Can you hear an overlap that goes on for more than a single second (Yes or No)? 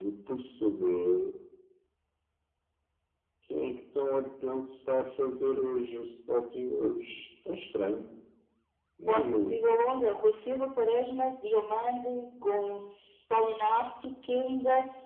No